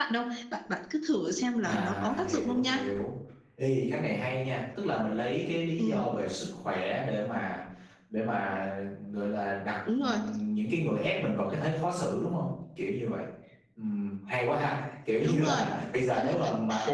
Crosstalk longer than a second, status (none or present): present